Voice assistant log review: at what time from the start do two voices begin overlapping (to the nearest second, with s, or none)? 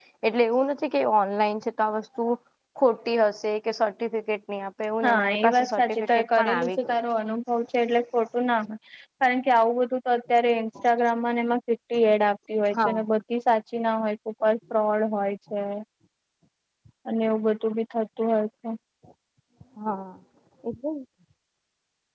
5 s